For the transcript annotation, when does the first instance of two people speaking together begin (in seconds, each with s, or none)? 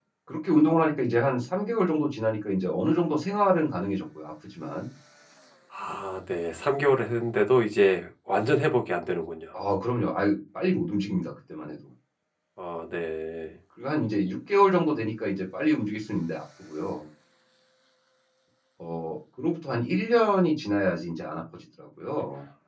none